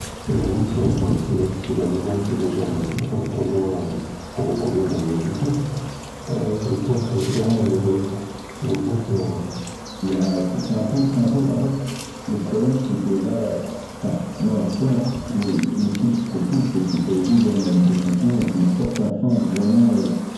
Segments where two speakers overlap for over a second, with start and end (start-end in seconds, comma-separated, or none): none